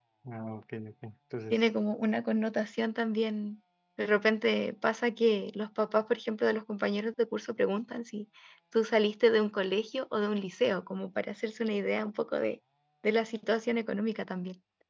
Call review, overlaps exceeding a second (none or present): none